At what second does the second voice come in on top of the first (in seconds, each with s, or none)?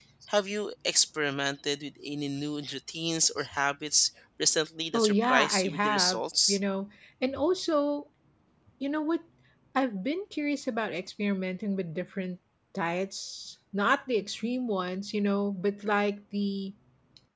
4.9 s